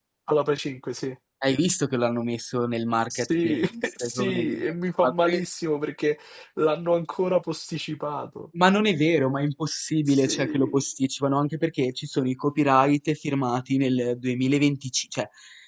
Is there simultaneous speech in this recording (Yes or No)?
Yes